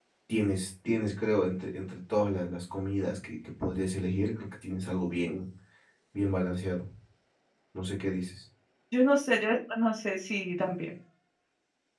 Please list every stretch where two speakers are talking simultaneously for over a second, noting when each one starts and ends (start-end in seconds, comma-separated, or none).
none